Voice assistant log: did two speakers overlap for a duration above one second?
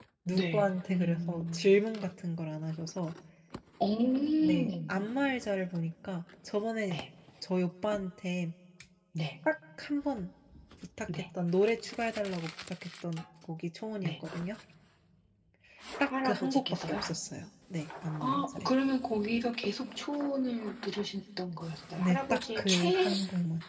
Yes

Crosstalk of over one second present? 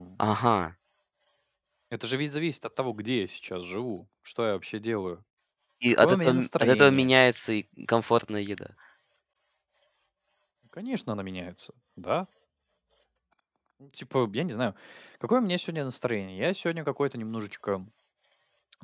Yes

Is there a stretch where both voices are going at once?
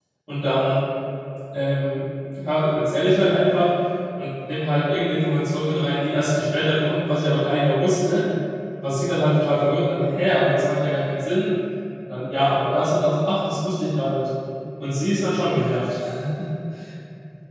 No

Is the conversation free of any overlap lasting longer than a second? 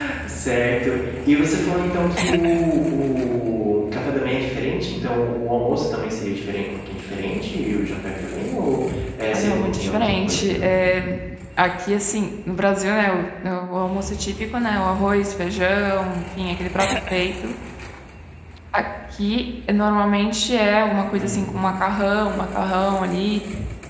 No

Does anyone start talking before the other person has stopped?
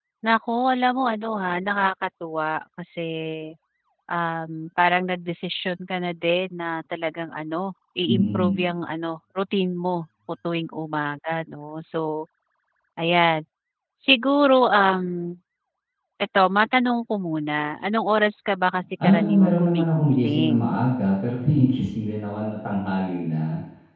Yes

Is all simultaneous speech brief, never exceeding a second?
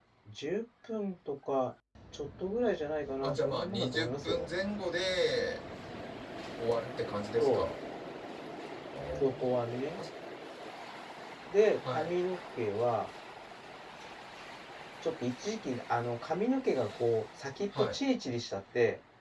No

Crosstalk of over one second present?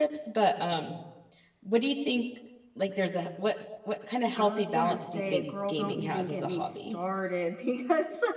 Yes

